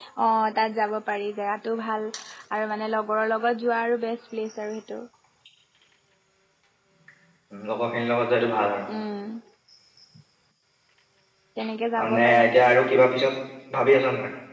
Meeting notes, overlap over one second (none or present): none